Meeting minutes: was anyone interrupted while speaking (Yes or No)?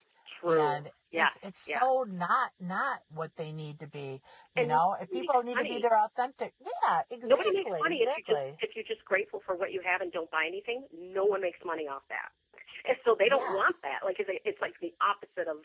Yes